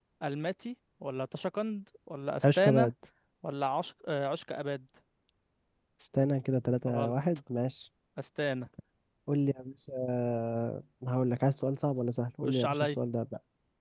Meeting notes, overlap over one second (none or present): none